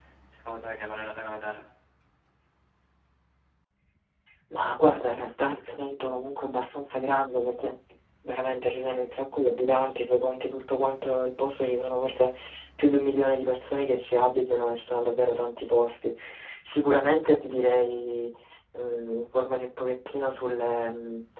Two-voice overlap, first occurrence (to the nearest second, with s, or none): none